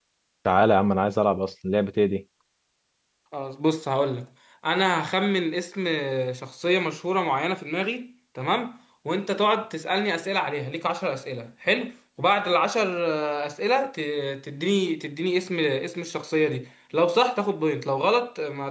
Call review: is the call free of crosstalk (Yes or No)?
Yes